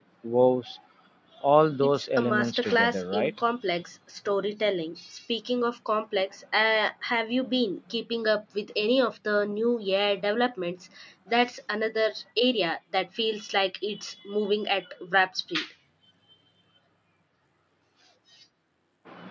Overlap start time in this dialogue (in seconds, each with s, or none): 1.8 s